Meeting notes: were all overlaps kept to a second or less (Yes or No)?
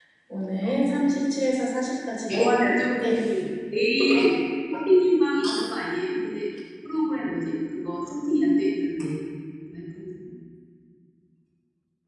Yes